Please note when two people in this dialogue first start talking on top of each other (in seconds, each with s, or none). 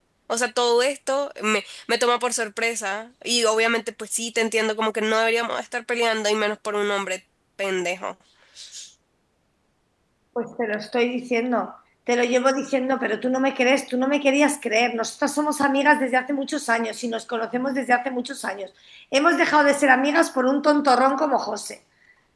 none